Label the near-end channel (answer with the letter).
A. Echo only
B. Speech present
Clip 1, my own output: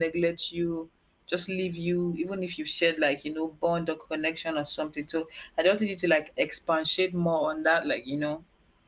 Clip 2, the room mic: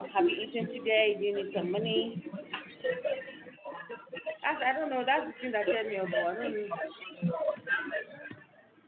B